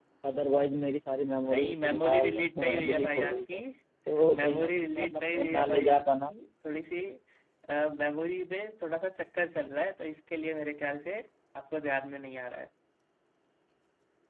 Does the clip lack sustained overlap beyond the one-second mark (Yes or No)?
No